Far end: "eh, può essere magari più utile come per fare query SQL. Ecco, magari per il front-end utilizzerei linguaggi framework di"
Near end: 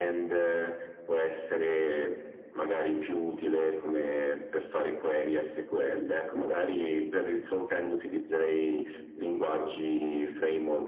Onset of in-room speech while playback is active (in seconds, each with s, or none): none